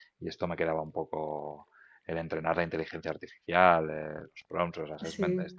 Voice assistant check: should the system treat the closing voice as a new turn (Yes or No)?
No